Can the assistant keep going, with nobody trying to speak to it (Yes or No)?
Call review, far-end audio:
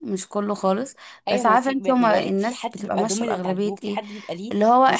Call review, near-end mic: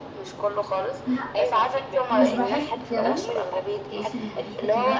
No